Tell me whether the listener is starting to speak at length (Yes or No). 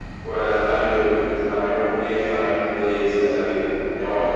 Yes